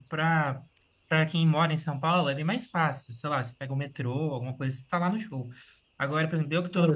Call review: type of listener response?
listening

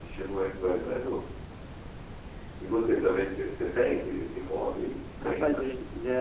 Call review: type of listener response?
taking over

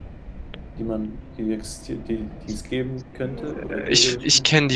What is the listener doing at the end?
taking over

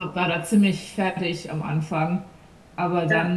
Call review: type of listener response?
listening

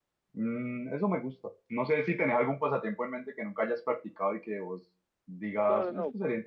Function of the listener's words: taking over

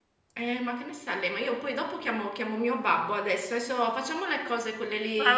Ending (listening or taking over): taking over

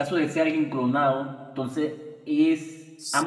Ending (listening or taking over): taking over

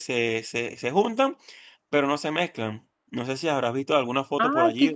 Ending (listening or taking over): taking over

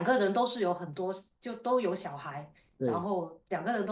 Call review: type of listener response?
listening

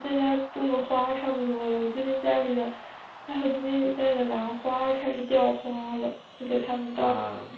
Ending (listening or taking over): listening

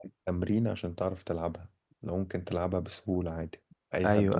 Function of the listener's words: taking over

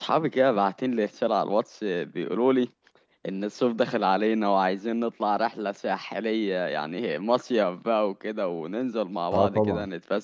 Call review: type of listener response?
listening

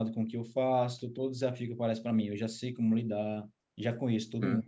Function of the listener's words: listening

